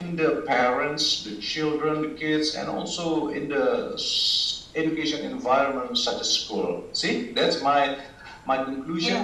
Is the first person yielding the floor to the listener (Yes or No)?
No